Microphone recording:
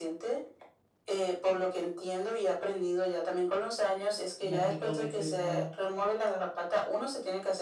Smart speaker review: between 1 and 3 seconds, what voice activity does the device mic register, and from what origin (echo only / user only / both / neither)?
echo only